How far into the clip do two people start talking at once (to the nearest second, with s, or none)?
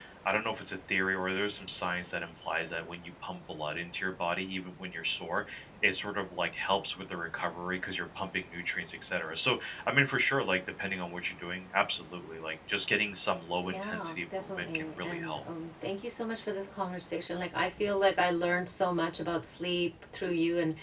14 s